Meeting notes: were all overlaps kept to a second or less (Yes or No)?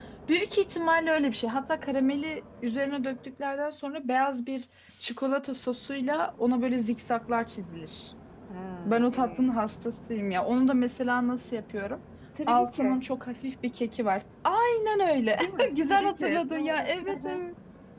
No